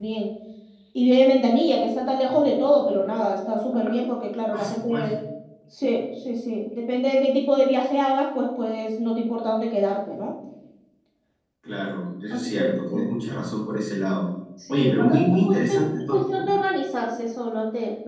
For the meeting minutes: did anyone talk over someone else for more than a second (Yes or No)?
Yes